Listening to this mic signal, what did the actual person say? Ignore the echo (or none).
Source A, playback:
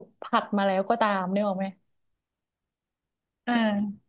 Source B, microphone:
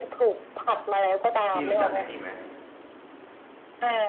พี่รู้จักไอ้นี่ไหม